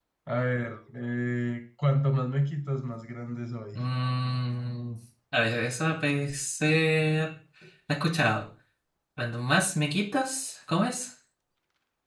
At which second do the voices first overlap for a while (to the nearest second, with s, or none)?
none